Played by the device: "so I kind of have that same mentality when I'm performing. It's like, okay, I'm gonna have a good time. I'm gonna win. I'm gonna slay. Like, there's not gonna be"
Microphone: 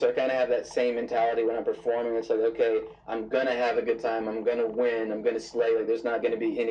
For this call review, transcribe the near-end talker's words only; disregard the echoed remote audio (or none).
none